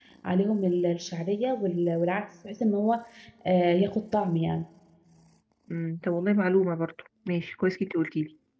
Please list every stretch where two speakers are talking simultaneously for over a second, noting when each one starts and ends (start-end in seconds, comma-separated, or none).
none